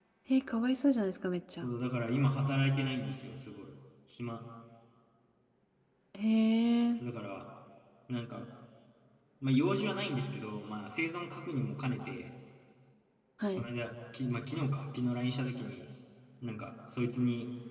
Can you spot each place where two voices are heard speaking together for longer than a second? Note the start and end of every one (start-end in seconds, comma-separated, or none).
none